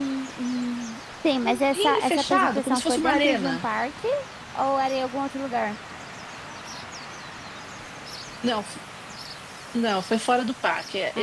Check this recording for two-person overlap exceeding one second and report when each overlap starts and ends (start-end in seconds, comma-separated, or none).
1.4-3.6